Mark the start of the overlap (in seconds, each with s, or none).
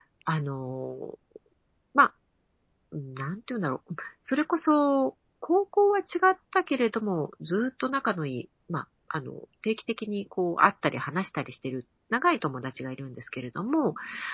none